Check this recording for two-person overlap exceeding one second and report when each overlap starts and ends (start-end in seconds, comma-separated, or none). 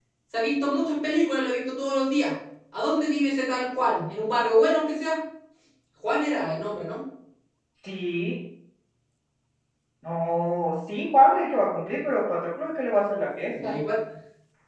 none